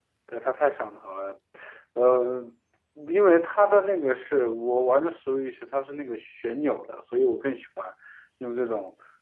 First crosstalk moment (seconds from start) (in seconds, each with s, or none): none